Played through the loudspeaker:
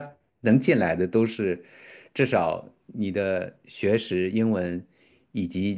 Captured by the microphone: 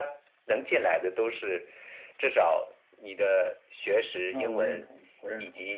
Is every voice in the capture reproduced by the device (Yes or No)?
No